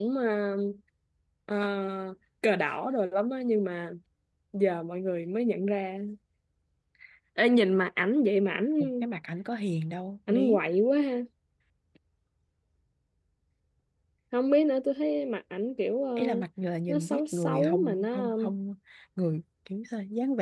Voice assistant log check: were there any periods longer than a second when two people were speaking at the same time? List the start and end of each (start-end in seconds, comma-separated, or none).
16.9-18.3